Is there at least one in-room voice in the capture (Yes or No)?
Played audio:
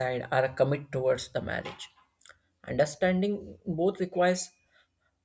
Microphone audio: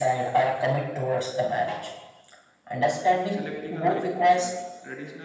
Yes